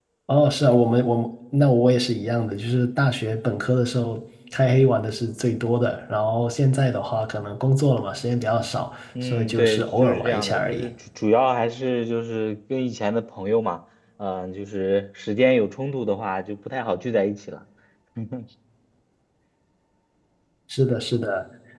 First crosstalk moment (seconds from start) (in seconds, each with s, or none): 9.2 s